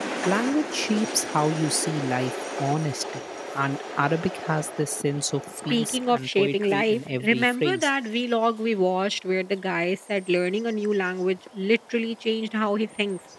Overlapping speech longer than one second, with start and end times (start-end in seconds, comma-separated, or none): 5.7-7.9